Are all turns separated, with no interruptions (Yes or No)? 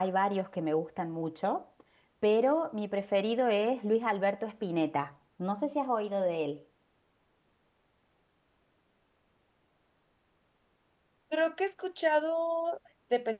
Yes